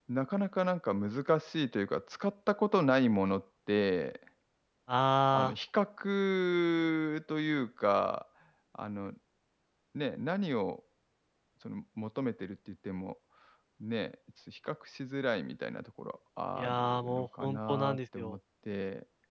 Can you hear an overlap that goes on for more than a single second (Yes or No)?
Yes